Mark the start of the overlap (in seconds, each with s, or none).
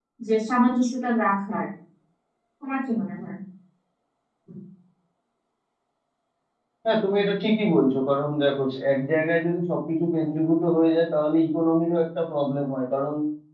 none